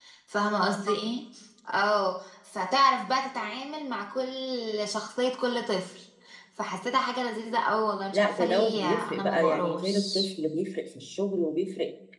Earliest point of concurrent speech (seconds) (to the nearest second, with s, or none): 8 s